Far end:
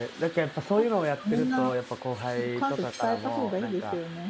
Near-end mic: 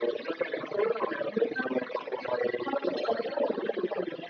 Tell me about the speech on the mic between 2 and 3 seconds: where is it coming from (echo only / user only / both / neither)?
echo only